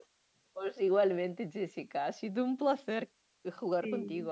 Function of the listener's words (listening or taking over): listening